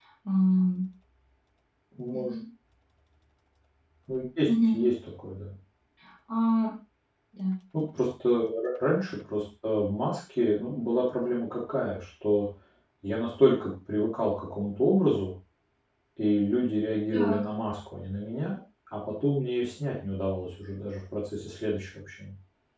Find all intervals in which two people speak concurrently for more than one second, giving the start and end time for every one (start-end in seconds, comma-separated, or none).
none